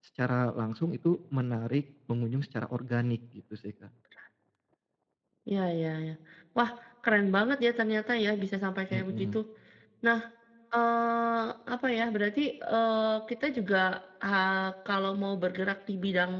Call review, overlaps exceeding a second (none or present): none